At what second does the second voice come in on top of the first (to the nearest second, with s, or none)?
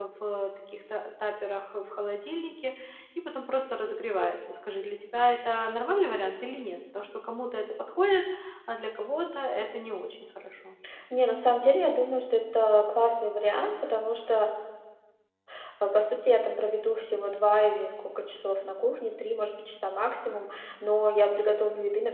none